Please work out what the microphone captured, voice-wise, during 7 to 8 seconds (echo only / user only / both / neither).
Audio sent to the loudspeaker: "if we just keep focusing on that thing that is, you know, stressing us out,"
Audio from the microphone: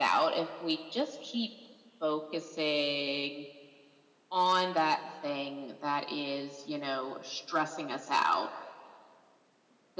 echo only